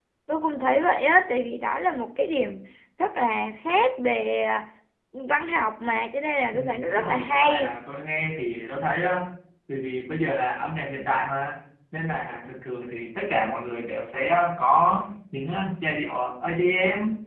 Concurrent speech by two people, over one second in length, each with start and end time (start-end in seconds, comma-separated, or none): 6.5-7.7